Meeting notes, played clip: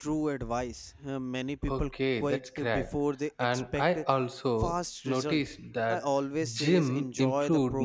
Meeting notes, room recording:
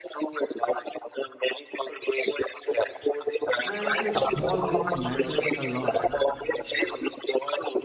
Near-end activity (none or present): present